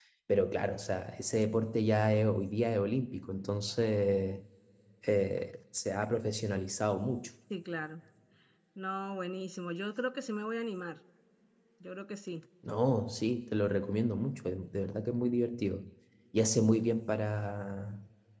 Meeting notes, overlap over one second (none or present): none